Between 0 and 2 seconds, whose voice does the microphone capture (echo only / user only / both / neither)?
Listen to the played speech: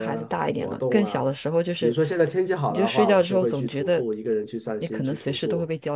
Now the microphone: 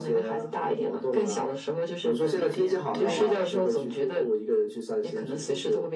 echo only